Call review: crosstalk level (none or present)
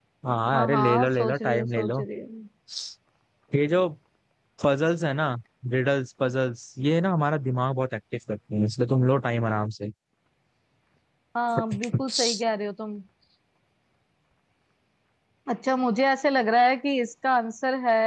present